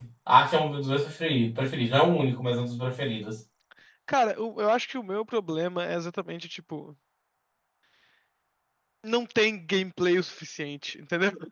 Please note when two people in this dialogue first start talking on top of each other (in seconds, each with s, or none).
none